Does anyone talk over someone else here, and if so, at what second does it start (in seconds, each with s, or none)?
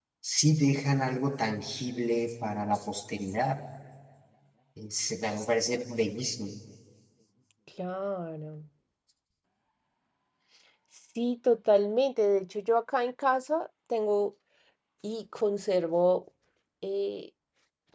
none